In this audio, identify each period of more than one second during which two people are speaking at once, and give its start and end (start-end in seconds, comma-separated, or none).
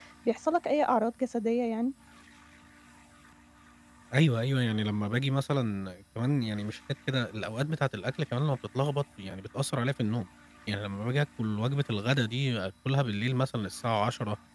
none